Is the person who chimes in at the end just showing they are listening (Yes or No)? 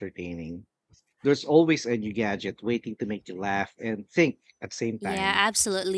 No